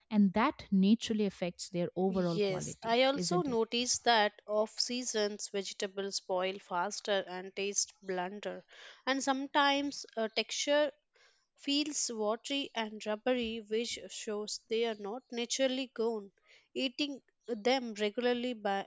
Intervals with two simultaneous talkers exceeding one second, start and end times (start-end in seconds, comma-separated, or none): 2.3-3.6